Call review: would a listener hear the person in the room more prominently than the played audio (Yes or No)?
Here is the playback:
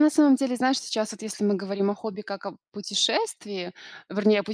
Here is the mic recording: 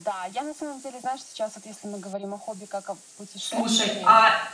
Yes